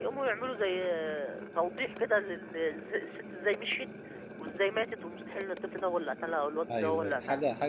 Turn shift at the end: Yes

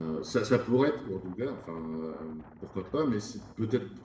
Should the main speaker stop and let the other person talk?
No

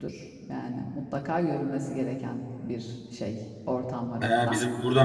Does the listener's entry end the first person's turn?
Yes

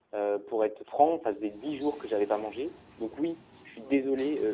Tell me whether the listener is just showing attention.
Yes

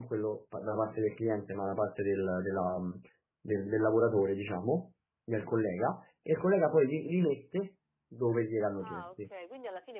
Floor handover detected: Yes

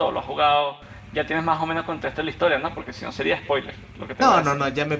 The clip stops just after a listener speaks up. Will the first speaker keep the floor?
No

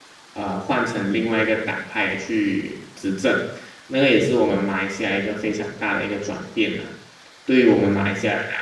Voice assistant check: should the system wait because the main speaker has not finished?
Yes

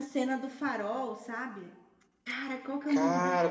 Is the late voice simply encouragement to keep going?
No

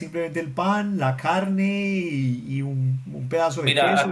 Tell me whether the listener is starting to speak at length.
Yes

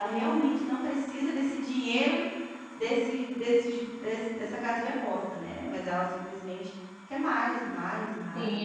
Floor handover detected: Yes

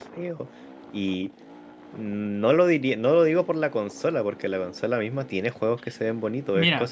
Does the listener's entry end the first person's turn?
Yes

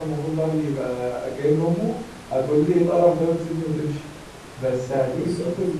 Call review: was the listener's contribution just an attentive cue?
Yes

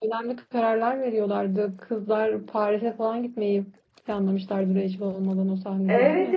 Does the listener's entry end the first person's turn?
Yes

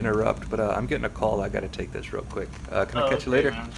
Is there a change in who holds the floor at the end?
Yes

